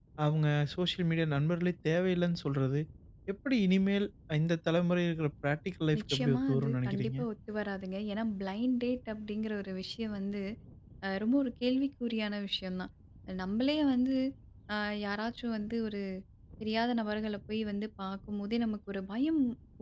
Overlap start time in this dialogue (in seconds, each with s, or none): 5.9 s